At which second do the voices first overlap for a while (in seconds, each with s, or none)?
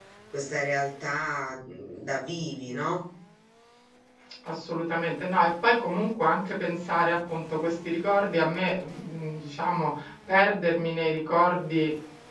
none